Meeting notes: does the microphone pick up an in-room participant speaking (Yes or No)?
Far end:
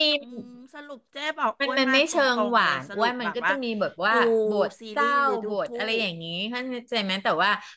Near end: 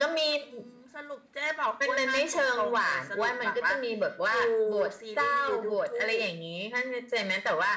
No